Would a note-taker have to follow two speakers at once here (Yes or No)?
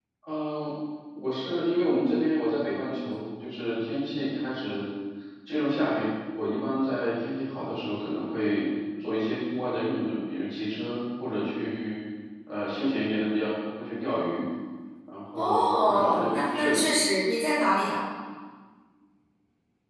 Yes